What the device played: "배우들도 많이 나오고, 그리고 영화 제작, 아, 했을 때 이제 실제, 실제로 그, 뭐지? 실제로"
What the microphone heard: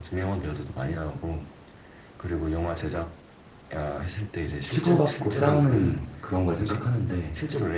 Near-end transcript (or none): 치고받고 싸우는 그런 걸 생각하는데,